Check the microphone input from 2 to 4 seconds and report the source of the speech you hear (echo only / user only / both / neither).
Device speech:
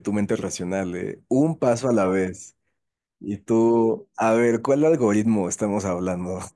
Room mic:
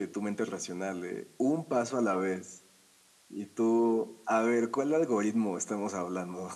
echo only